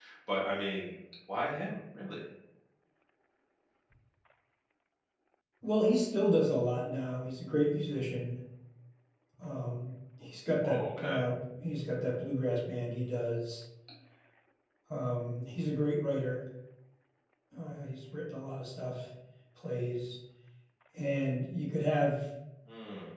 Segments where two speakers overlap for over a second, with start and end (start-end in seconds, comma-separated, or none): none